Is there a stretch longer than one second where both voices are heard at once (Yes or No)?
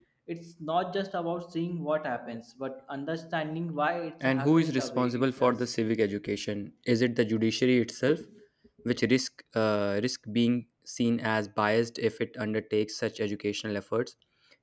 Yes